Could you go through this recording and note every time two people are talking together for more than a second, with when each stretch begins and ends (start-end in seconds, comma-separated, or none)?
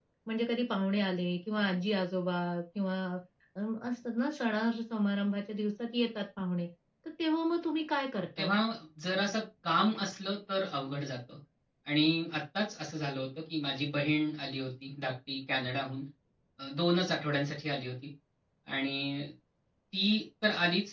none